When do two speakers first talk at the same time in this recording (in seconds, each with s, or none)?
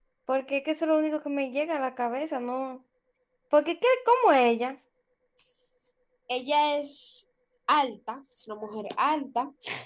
none